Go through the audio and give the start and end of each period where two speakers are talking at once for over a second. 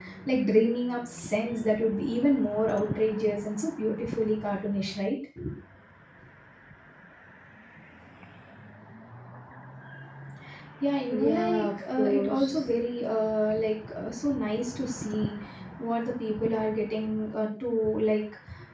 11.1-12.6

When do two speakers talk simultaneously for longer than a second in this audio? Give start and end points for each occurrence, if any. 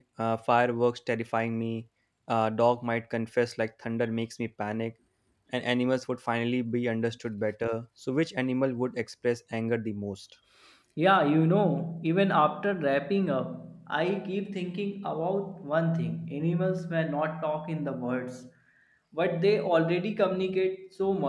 none

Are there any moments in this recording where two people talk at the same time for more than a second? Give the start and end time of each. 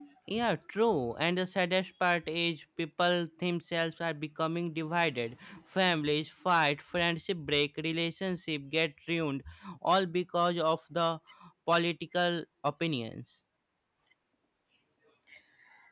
none

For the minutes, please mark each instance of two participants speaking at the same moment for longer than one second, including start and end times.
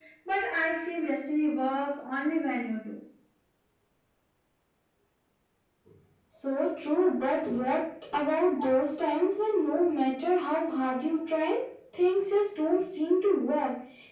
none

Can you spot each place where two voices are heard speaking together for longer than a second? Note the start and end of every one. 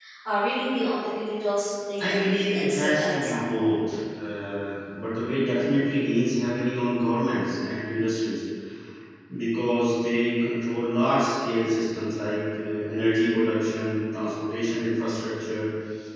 2.0-3.7

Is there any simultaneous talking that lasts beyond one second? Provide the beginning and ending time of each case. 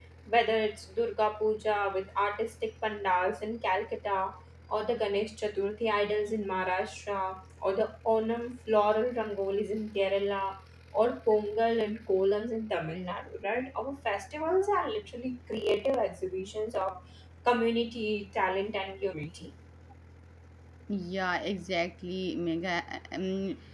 none

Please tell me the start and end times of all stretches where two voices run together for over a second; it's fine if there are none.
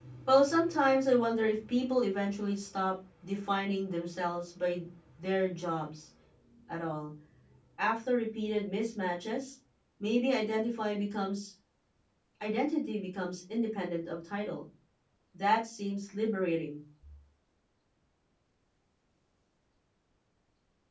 none

